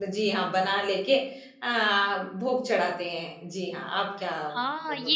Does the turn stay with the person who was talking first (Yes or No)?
No